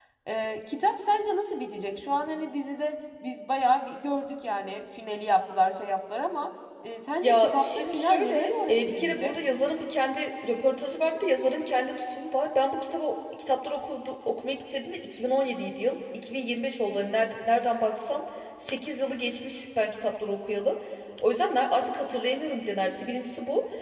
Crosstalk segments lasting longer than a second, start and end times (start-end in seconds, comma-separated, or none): 7.2-9.3